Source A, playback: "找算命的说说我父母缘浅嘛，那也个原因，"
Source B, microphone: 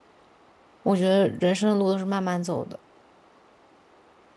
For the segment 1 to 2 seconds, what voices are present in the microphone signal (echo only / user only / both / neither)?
user only